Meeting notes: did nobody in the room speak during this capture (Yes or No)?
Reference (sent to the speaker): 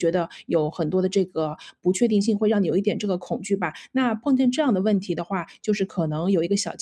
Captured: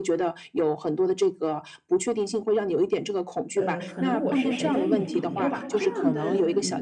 No